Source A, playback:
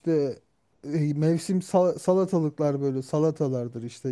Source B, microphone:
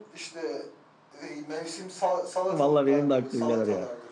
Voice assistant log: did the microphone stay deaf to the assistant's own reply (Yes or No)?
No